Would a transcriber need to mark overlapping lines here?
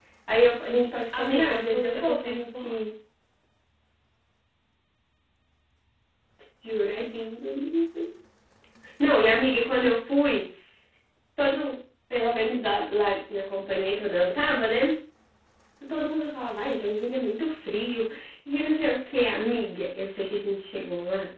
Yes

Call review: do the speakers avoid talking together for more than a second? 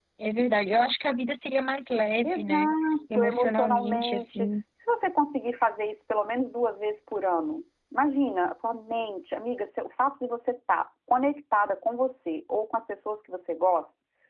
No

